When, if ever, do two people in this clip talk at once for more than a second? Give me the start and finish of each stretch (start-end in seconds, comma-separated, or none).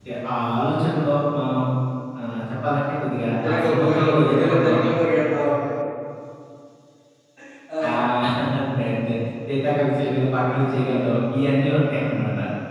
3.4-4.8